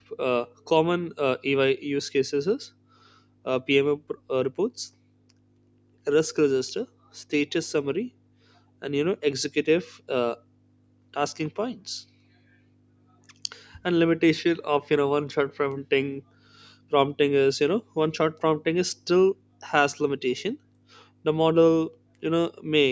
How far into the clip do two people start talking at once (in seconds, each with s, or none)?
none